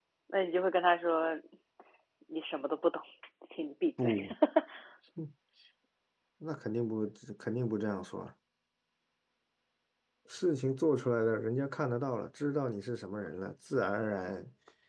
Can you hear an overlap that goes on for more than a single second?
No

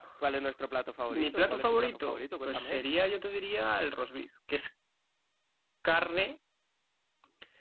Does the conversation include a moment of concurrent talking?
Yes, from 1.1 s

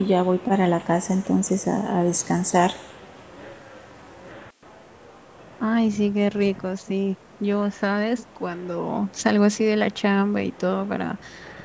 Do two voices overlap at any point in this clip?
No

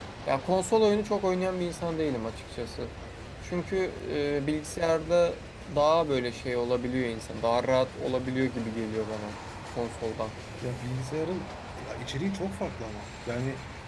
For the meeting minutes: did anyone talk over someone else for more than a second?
No

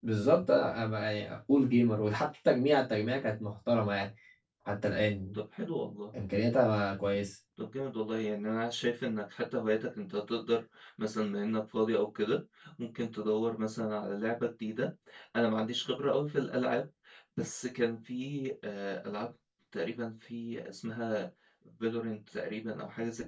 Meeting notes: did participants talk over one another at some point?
No

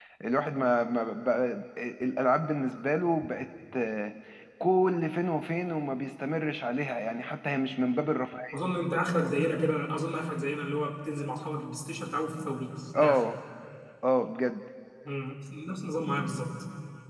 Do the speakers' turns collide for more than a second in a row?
No

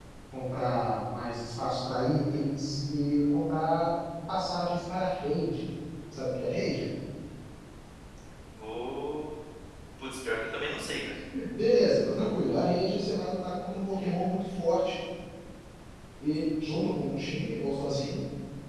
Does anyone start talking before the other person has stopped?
No

